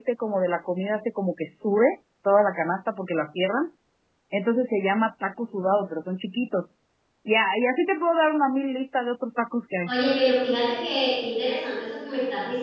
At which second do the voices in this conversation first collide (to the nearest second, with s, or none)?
none